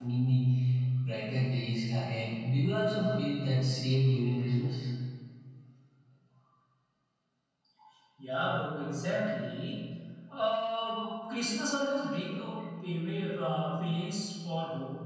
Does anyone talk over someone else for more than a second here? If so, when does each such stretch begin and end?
none

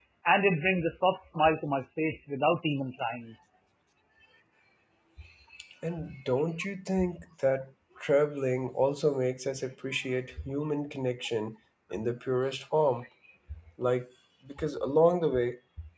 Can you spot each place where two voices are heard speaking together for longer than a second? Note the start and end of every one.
none

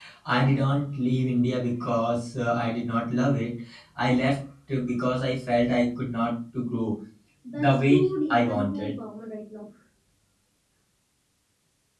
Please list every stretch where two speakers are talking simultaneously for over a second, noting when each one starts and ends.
7.6-8.9

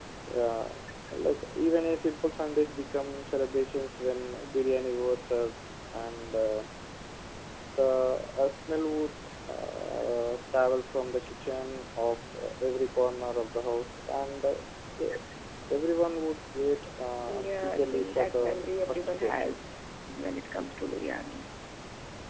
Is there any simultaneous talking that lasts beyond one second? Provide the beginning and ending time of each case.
17.3-19.3

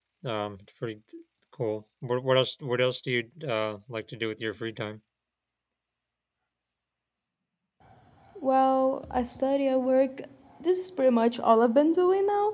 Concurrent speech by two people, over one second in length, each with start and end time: none

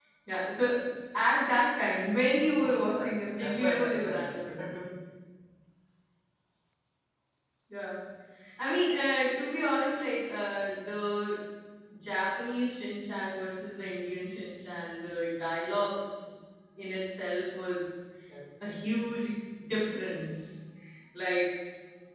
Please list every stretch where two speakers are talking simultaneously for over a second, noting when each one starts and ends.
2.5-4.7

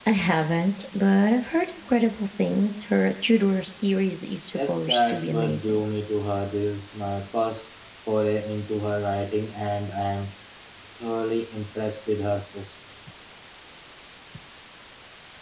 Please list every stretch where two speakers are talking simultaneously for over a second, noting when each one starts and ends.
4.5-5.8

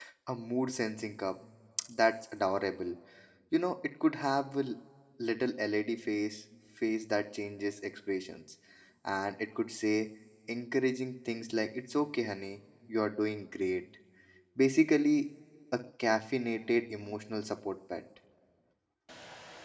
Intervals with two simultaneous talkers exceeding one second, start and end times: none

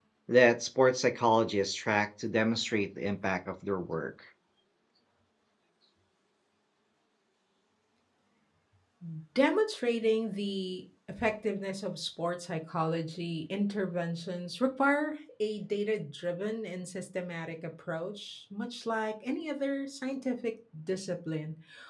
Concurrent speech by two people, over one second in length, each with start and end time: none

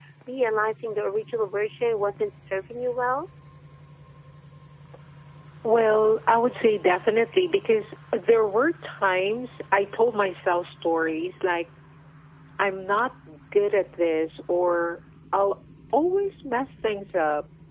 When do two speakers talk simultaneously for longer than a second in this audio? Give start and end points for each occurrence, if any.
none

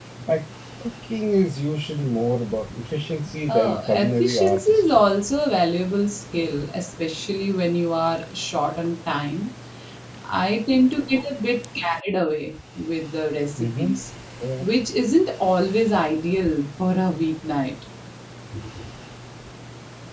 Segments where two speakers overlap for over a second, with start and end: 3.5-5.0

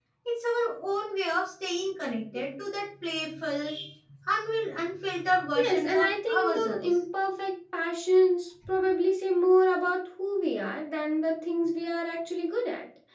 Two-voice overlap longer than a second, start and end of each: 5.5-6.9

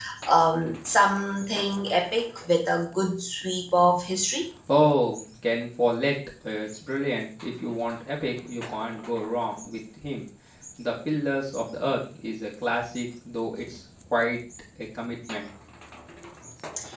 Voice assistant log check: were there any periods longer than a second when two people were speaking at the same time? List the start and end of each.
none

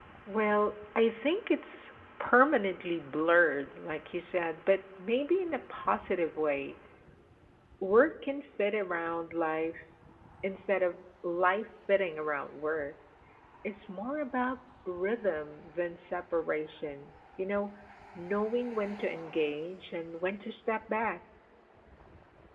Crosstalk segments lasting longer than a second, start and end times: none

